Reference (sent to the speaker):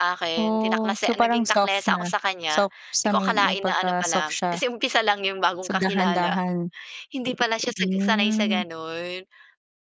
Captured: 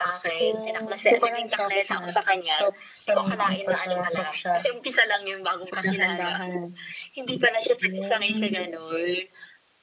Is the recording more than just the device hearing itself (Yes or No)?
No